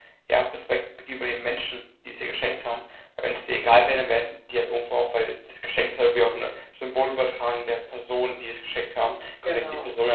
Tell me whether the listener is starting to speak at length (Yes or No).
No